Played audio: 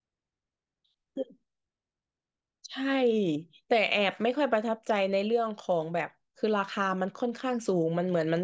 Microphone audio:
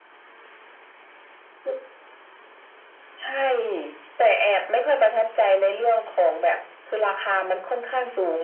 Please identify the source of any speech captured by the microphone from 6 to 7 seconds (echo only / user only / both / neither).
echo only